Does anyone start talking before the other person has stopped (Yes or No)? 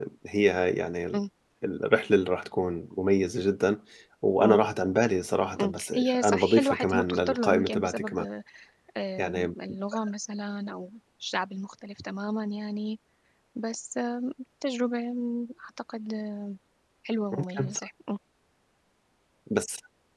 Yes